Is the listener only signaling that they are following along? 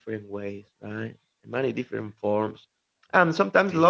Yes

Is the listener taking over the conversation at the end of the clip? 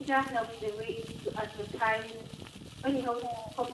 No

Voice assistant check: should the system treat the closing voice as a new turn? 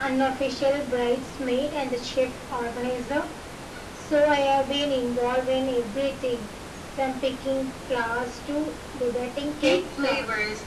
Yes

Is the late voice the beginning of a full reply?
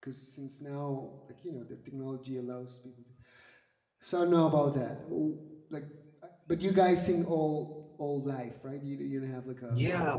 Yes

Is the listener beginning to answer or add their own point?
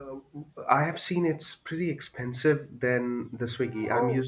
No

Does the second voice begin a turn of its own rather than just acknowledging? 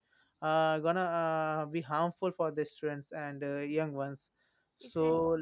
No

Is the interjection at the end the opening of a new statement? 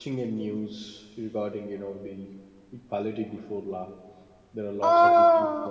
Yes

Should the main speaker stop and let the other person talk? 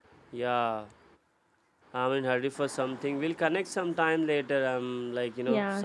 Yes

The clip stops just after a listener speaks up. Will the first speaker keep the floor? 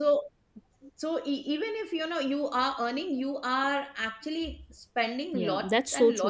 No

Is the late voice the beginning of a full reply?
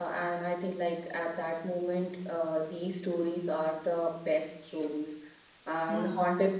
No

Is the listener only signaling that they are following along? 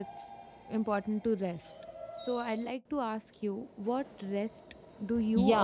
No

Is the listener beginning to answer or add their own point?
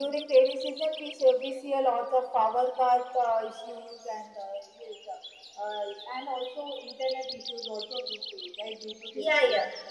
Yes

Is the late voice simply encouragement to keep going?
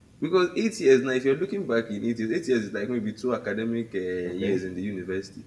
Yes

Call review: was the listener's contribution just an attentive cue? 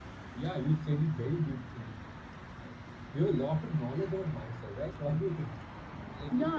No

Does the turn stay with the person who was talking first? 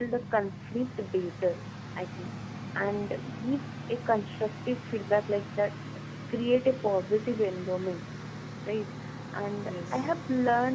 Yes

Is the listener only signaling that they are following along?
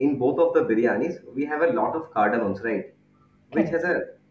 Yes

